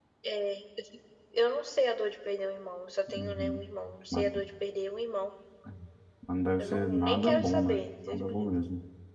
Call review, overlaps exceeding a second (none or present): present